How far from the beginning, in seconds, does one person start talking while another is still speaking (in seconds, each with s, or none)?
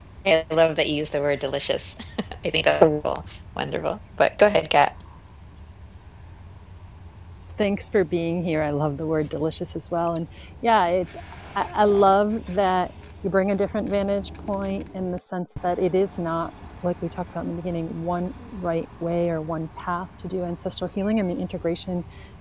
none